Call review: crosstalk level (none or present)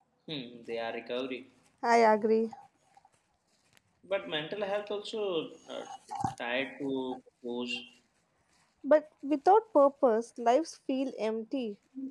none